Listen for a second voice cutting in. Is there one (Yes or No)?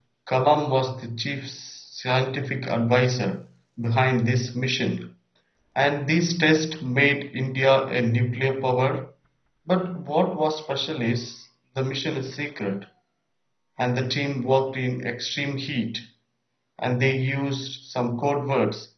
No